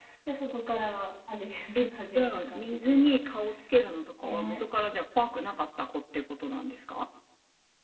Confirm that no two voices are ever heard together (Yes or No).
No